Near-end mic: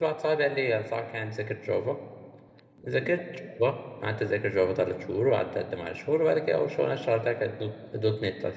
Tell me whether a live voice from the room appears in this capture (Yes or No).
Yes